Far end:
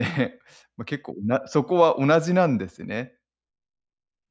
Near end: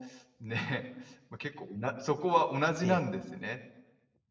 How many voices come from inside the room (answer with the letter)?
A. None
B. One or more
B